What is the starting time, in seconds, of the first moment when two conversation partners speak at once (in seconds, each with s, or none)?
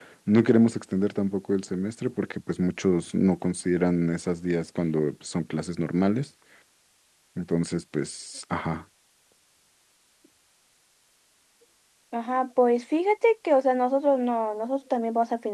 none